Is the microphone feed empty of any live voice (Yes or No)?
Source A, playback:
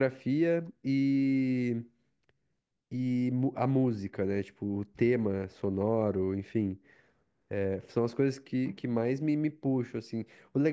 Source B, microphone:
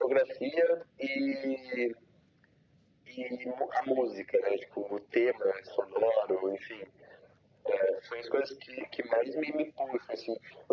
Yes